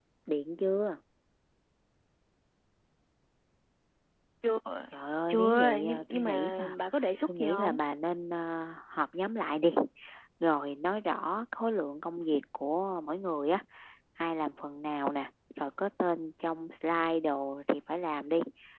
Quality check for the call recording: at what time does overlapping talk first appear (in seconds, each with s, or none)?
5.3 s